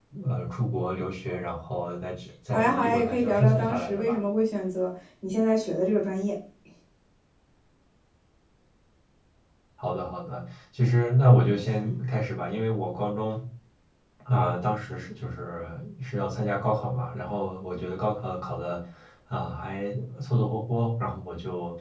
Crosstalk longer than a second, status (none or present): present